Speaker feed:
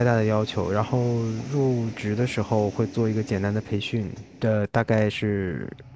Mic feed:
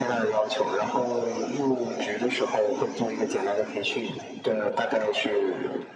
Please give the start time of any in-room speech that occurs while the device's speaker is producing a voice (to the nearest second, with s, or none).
none